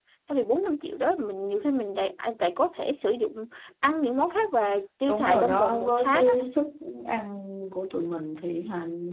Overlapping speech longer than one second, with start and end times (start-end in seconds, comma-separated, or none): 5.1-6.3